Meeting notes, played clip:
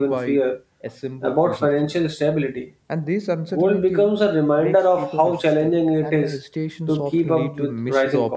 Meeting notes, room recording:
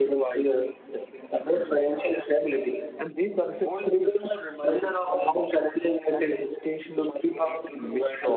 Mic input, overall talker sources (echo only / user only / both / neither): echo only